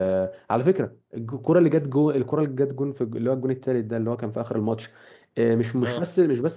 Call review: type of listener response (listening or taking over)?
listening